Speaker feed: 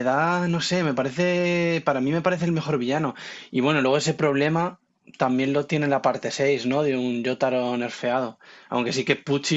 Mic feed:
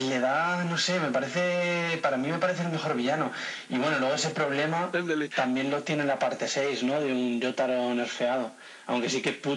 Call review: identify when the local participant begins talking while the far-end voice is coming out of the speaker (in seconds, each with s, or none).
4.9 s